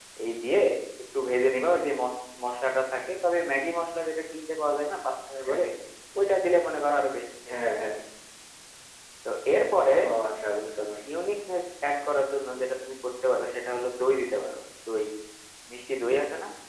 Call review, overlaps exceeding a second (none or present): none